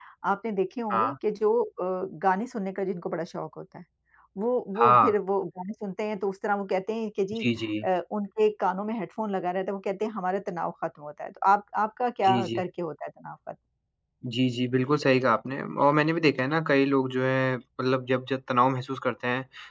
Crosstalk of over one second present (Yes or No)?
No